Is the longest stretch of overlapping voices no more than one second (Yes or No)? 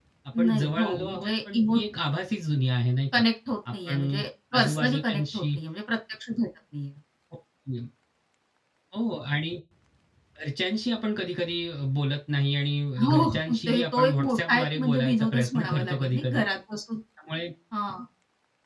No